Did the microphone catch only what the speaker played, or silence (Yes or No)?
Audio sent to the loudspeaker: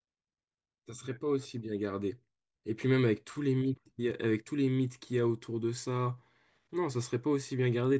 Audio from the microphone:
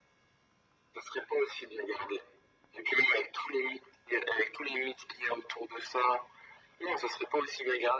Yes